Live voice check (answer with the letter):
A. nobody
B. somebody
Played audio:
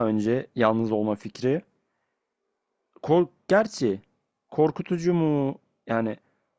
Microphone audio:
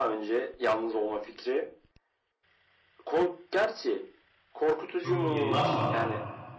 B